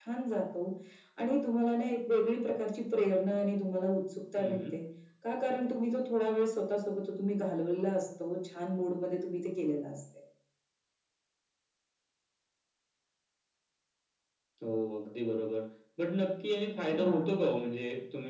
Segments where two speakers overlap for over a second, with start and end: none

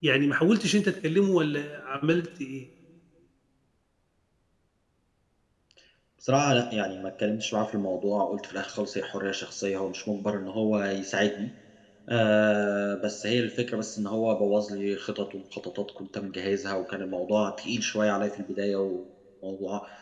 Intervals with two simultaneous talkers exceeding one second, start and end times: none

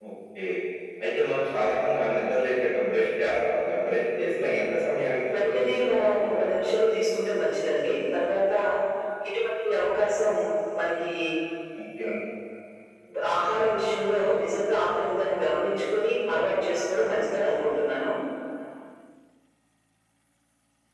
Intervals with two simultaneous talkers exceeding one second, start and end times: 5.3-6.7

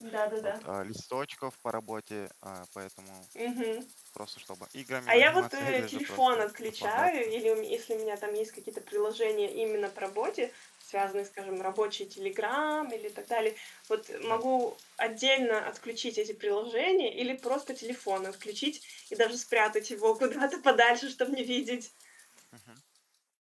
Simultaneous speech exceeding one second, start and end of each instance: 5.1-7.1

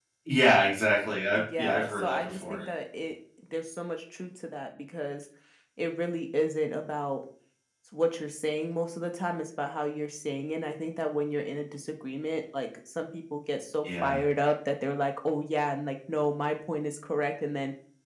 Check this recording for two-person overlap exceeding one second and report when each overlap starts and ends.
1.4-2.6

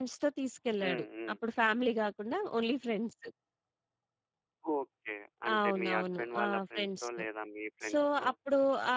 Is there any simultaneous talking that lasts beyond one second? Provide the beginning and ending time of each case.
5.5-7.2

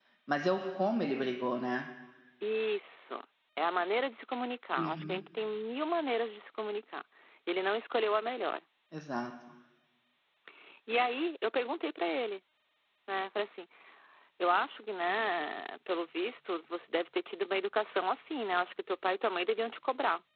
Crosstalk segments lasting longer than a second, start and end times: none

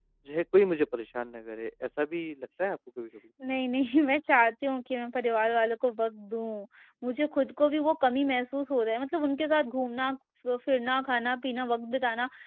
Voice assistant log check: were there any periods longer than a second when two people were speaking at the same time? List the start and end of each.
none

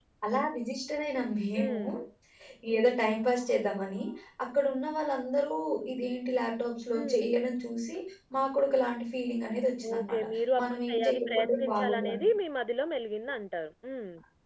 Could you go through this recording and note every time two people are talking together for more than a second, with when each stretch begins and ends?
10.6-12.2

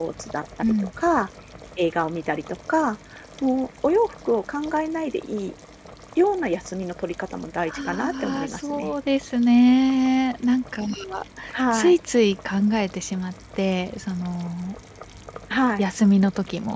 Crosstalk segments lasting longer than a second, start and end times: 7.7-8.9

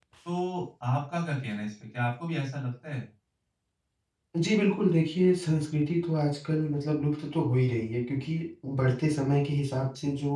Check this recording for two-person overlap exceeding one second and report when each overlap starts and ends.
none

